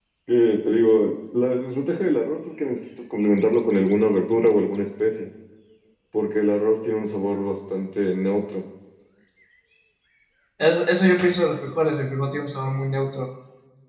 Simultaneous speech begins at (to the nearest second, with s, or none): none